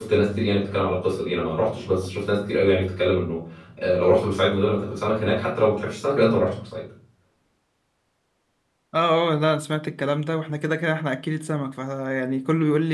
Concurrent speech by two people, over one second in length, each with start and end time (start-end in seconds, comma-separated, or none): none